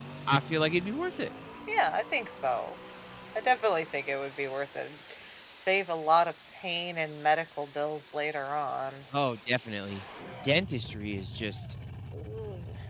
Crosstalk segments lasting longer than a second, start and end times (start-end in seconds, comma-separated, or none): none